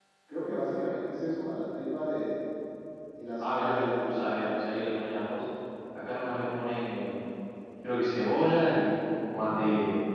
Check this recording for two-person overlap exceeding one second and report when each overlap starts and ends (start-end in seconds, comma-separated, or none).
3.4-4.6